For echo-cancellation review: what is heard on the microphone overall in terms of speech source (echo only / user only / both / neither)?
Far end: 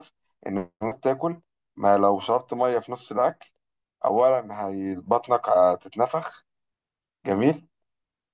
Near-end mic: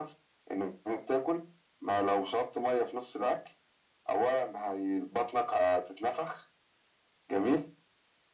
echo only